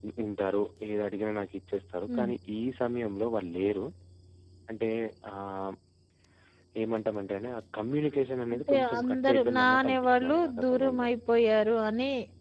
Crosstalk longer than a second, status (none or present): present